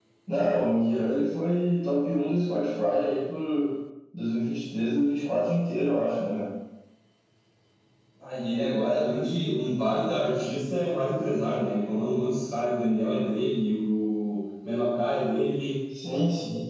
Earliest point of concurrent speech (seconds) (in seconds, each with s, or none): none